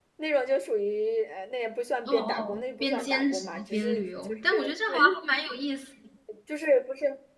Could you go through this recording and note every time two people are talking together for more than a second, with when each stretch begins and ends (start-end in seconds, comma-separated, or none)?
2.0-4.7